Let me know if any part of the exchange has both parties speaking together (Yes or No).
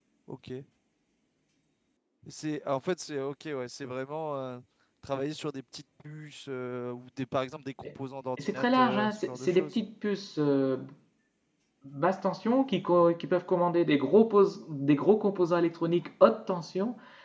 Yes